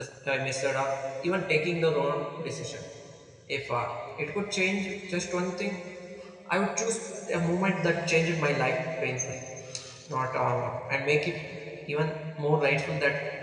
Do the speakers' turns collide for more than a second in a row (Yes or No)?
No